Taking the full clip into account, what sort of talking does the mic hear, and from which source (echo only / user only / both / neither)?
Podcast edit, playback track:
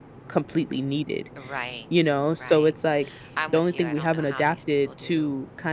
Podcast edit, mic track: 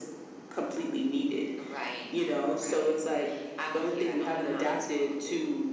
echo only